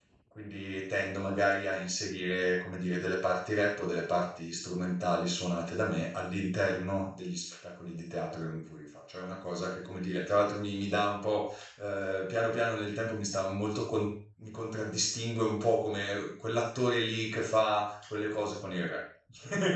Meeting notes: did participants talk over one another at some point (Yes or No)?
No